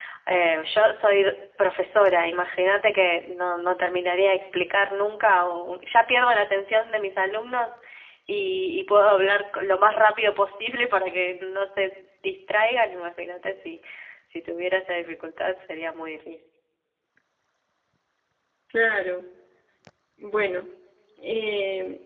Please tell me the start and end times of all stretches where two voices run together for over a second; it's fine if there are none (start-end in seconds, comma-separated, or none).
none